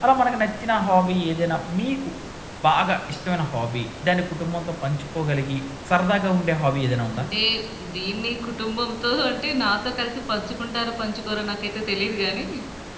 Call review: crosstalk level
none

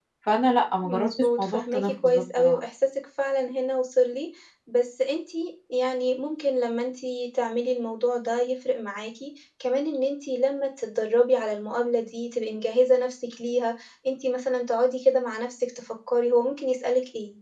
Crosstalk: present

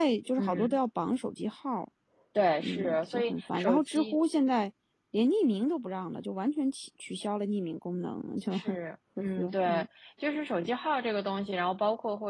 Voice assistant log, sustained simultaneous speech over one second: present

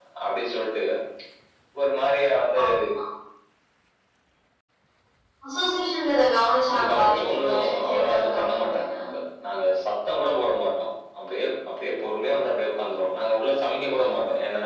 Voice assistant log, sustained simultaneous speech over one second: present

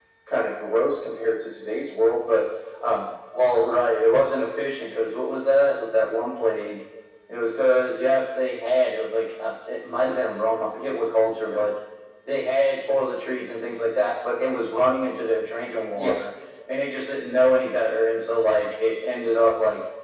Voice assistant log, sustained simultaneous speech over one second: none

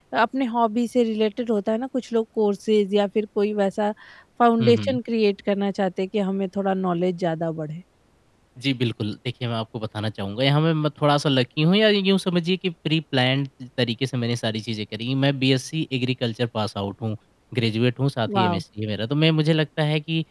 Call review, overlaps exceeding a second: none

